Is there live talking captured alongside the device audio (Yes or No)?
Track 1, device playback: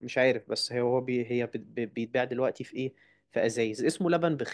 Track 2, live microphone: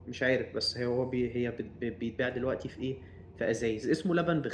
No